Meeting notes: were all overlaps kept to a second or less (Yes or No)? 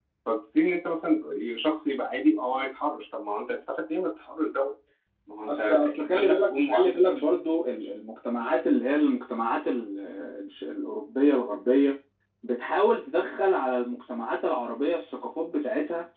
No